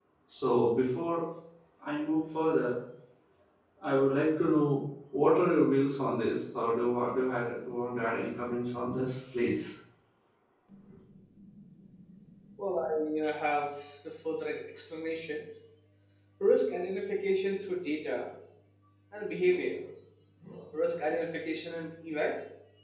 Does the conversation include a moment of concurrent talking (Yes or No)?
No